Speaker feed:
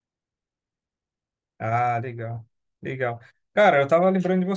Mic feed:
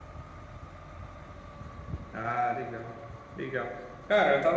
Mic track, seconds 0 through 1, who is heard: neither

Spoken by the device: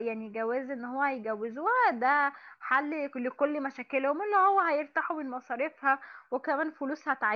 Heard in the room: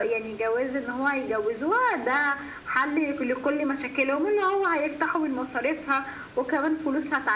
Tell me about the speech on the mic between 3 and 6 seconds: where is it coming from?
echo only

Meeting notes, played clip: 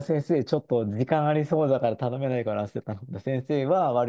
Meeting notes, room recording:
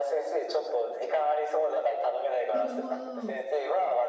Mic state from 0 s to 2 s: echo only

